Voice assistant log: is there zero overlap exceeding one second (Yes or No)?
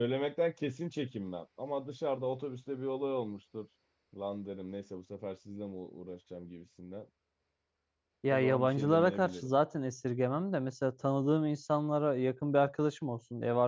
No